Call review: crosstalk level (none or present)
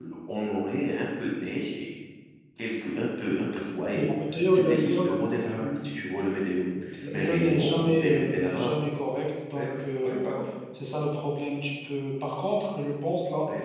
present